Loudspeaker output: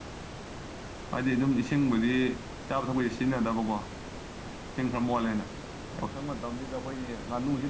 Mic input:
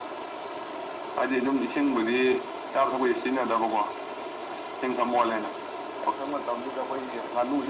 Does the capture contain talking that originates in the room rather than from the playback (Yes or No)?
No